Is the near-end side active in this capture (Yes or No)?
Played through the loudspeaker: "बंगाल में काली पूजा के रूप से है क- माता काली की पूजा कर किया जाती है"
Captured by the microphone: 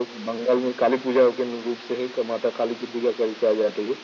No